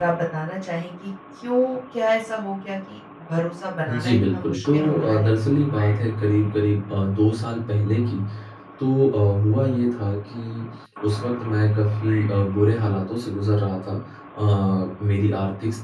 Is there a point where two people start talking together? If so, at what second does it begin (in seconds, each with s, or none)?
3.9 s